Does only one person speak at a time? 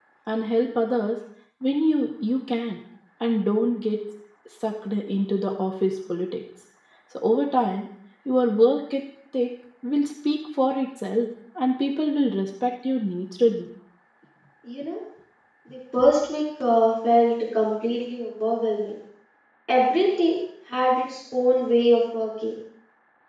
Yes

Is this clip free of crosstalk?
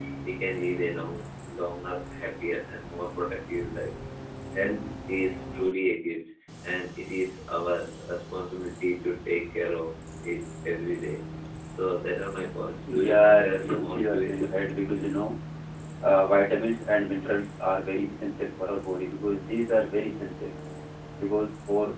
No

